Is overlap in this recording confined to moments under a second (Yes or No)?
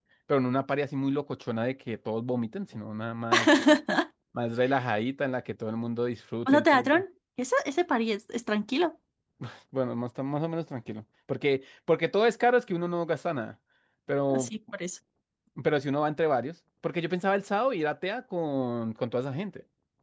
Yes